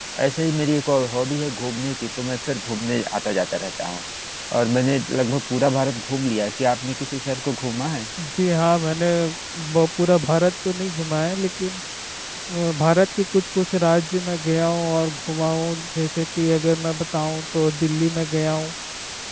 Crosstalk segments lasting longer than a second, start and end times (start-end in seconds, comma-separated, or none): none